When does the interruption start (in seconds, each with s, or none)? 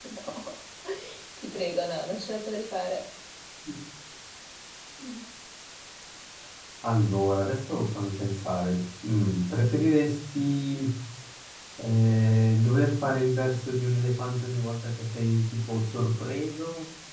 none